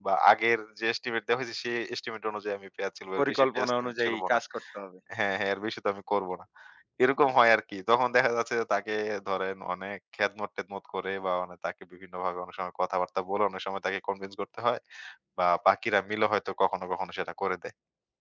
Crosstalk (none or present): present